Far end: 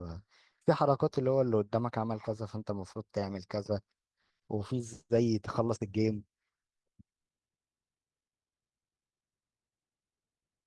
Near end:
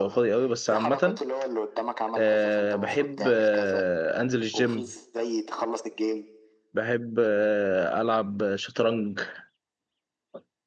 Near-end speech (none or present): present